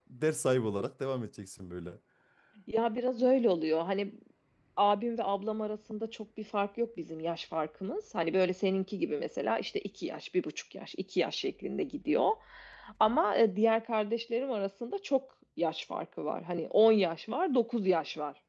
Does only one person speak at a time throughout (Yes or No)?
Yes